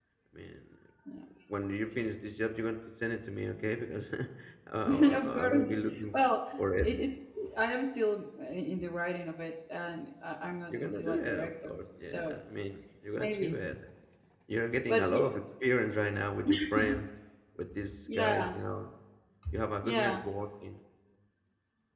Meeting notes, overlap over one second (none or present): present